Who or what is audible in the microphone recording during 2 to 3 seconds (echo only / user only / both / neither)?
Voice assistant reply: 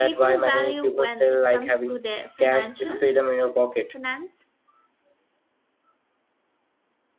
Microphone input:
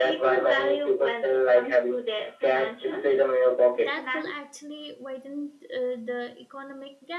echo only